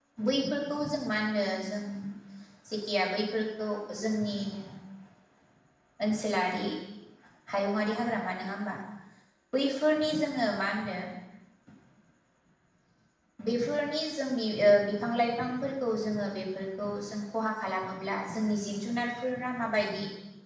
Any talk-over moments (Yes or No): No